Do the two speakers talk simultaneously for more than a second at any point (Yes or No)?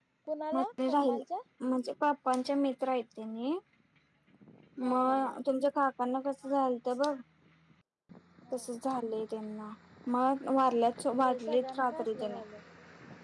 Yes